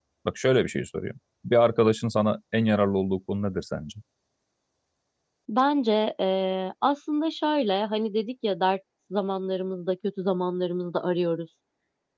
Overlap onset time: none

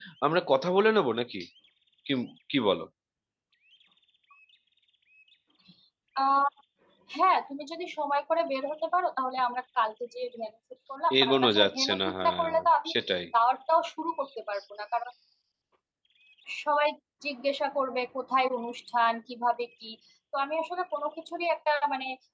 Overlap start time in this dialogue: 11 s

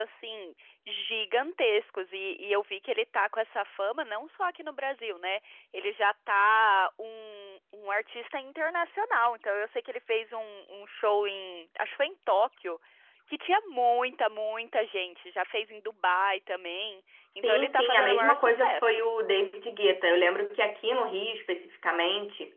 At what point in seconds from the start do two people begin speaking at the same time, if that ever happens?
17 s

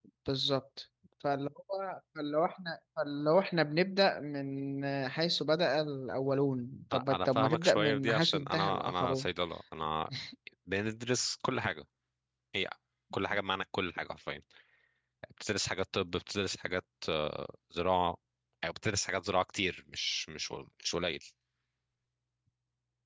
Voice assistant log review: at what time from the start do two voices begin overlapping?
7 s

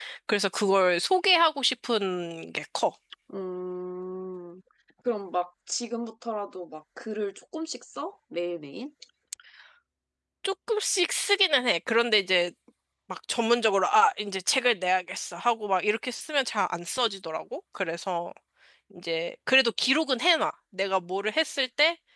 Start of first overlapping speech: none

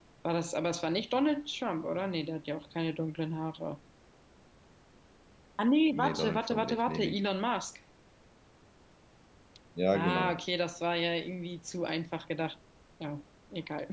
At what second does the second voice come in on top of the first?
6 s

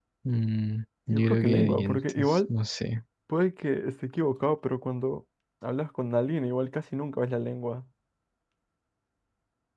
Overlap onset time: 1 s

